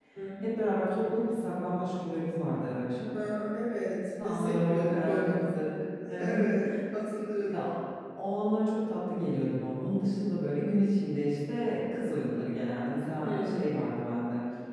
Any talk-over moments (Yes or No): Yes